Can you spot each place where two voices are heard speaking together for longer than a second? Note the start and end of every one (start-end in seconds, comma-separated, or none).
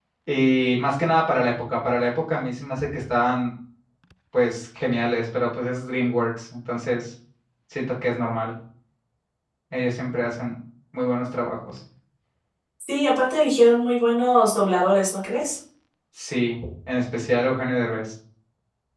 none